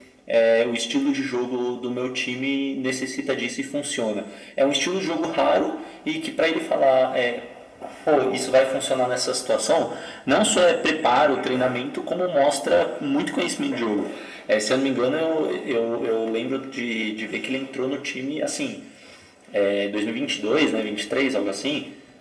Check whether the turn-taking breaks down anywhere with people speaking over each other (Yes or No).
No